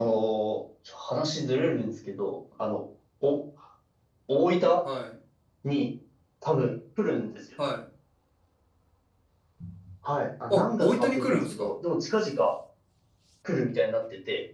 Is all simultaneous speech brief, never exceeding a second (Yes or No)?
No